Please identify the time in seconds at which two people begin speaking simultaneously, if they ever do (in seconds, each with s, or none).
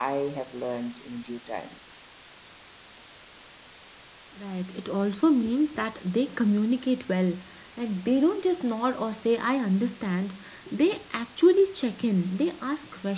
none